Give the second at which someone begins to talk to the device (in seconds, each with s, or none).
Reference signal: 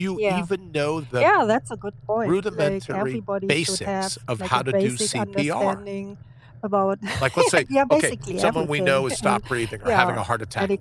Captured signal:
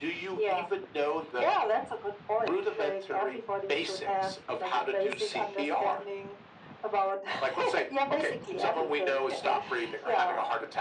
none